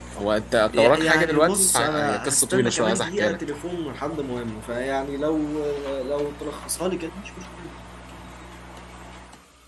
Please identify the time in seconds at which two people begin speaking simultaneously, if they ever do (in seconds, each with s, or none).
0.7 s